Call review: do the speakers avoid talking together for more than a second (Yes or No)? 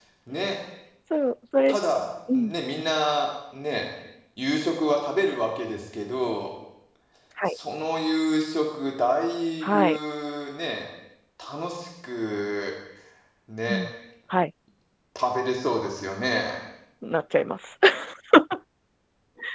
Yes